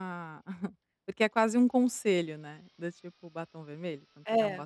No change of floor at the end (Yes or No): No